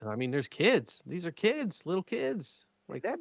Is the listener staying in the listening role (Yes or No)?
No